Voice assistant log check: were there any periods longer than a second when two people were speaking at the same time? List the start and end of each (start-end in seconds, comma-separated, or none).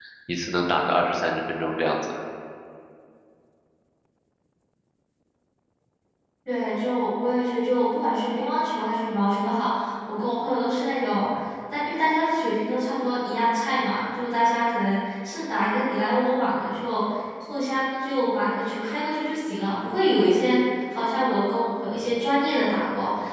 none